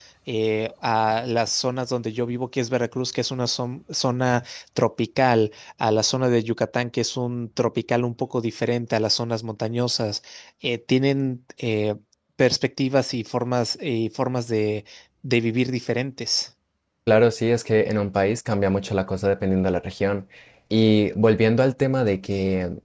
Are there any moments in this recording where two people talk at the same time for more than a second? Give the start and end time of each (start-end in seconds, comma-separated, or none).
none